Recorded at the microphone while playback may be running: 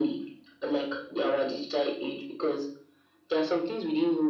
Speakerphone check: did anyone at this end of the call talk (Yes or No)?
No